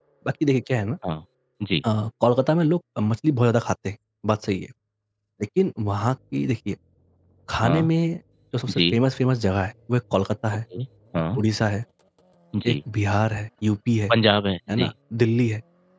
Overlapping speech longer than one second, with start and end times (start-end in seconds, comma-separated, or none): none